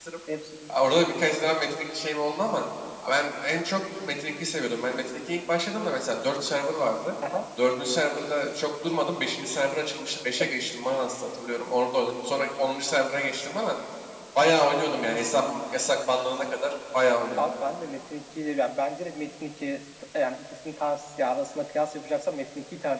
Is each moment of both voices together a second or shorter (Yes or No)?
Yes